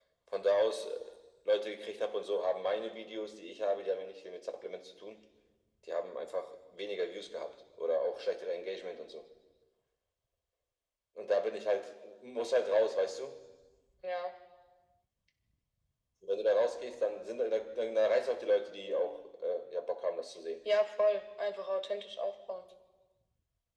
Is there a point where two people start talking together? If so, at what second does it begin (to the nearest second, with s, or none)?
none